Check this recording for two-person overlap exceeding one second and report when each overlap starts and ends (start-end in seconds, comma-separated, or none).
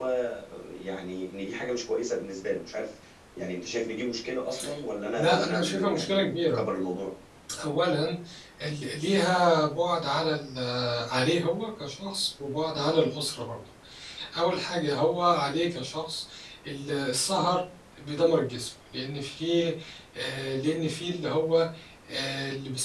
5.2-6.6